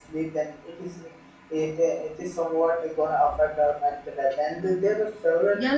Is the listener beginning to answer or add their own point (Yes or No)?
Yes